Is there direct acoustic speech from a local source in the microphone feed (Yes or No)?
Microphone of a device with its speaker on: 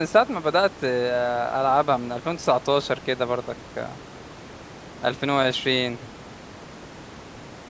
Yes